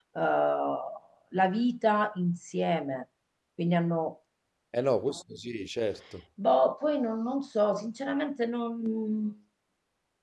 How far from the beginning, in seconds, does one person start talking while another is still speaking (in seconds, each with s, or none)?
none